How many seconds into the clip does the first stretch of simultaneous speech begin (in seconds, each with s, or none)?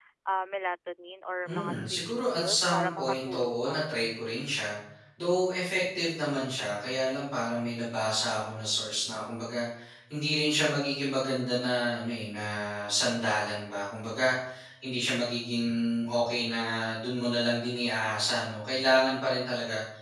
1.5 s